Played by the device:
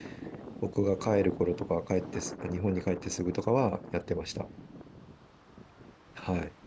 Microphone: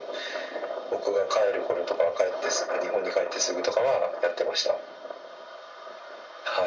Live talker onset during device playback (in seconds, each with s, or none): none